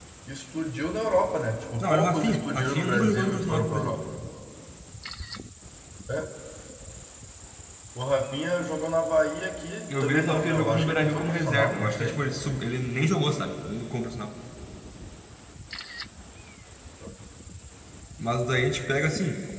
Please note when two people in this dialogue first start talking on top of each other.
2 s

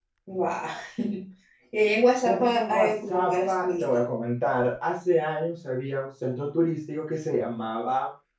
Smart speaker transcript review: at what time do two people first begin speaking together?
2 s

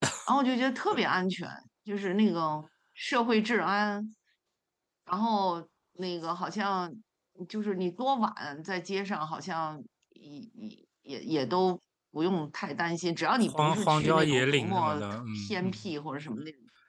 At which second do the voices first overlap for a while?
13 s

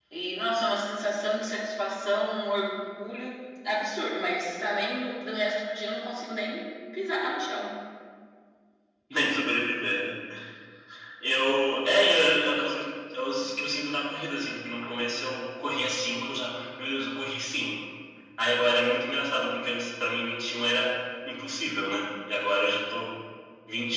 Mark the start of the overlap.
none

